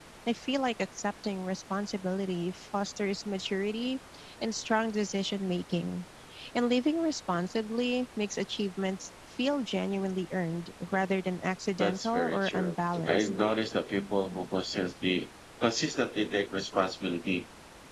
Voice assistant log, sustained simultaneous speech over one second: present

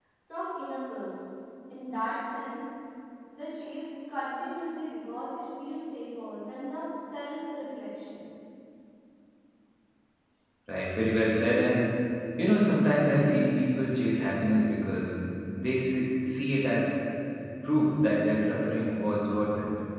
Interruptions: none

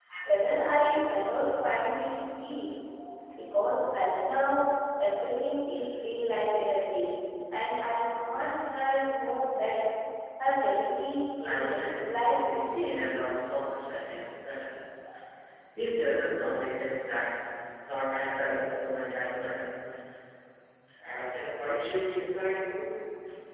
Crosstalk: present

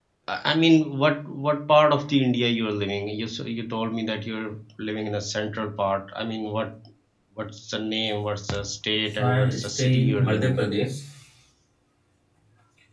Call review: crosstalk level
present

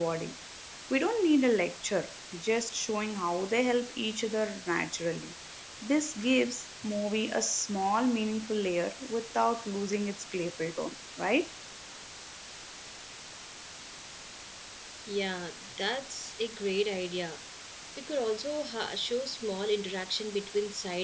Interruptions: none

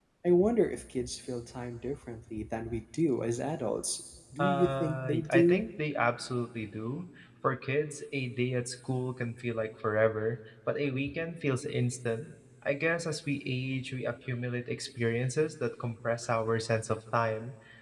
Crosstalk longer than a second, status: present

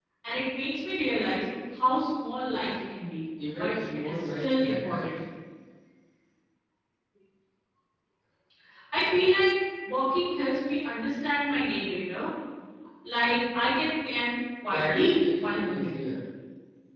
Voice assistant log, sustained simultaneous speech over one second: present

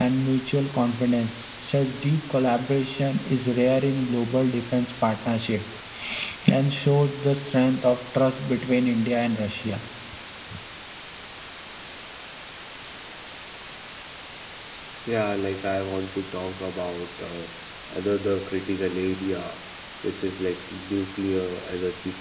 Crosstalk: none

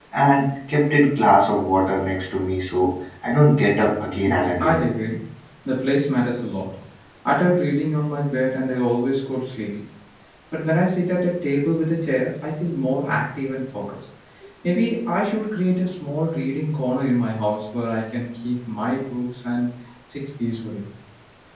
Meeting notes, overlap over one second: none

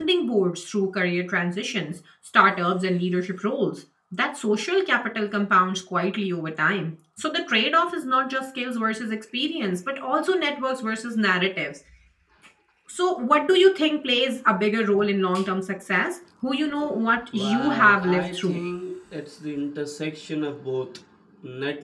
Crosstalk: present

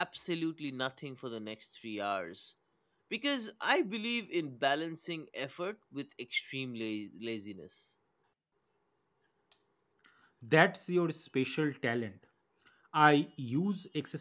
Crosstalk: none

